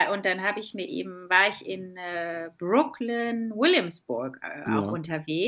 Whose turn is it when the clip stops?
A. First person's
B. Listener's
A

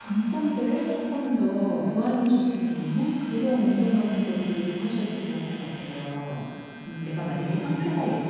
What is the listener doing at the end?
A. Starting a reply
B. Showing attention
B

